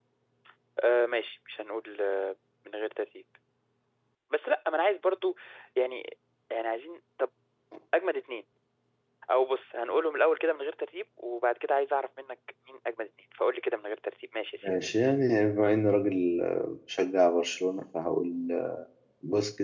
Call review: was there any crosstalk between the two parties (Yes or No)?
No